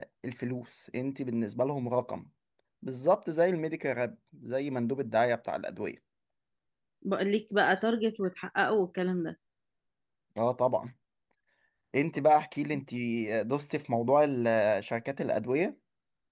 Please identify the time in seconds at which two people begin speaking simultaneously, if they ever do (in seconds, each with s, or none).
none